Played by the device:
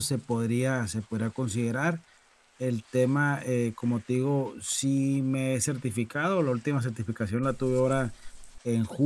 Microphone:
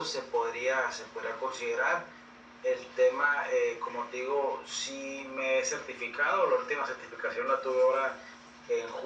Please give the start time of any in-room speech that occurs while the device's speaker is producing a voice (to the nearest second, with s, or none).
none